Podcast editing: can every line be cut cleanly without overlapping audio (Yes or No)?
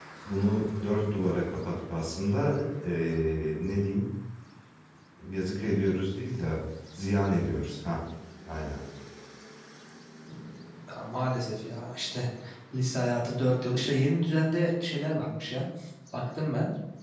Yes